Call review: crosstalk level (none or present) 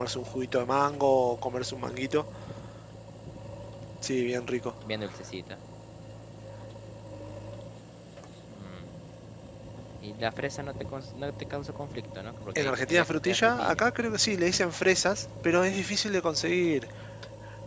present